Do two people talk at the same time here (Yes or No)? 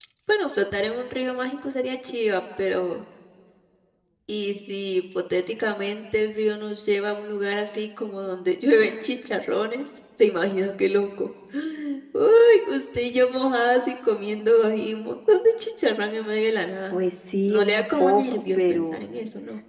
Yes